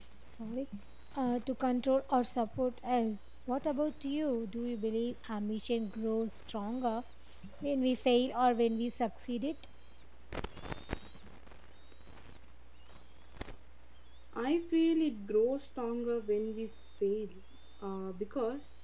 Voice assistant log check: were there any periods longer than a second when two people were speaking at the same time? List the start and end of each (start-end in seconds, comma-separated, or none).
none